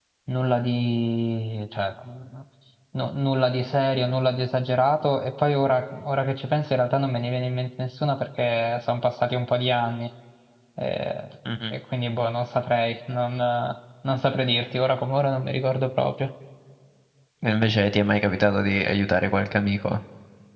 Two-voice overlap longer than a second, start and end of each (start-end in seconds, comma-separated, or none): none